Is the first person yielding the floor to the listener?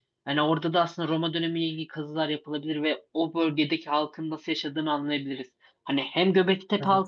No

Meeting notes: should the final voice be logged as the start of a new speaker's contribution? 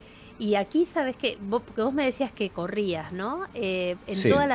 No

